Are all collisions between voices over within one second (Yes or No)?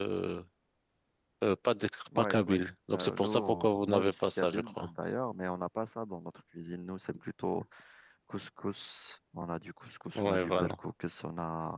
No